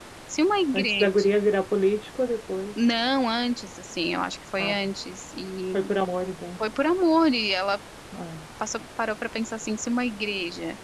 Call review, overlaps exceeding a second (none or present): none